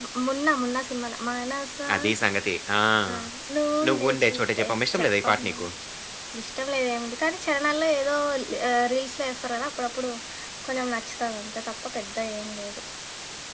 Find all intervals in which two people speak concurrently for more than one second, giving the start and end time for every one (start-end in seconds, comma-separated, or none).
3.9-5.5